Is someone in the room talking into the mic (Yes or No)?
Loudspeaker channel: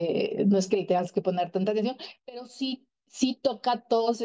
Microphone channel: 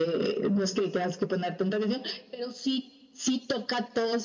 No